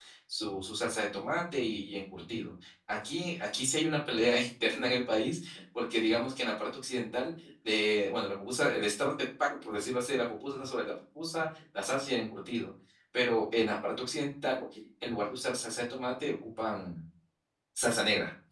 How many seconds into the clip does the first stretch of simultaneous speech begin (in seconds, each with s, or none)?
none